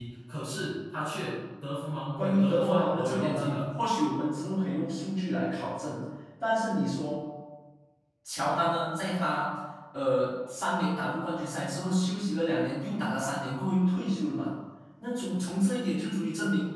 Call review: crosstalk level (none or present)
present